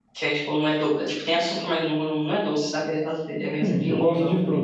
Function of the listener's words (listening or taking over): taking over